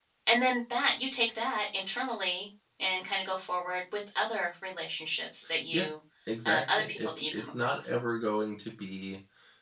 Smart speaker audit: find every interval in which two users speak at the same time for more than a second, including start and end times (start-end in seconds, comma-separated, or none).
6.5-8.0